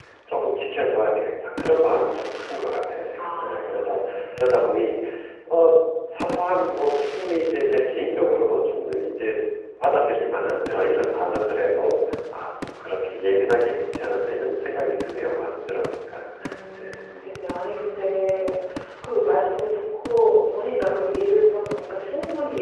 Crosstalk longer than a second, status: present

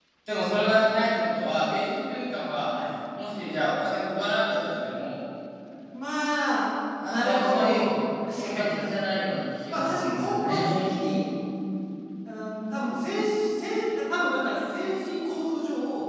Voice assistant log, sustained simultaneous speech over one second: present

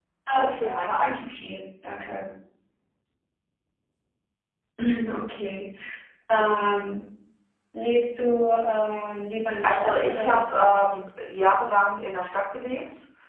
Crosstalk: present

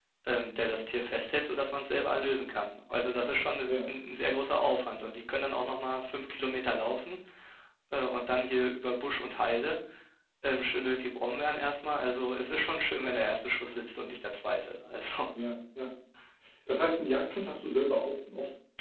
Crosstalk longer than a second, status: none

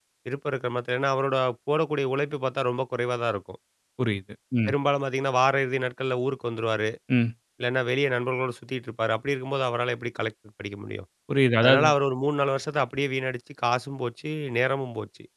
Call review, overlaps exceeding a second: none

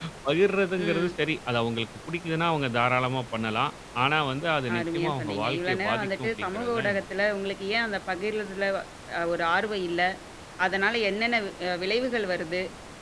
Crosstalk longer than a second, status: present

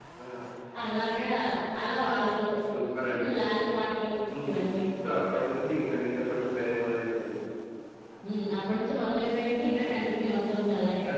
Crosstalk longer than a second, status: none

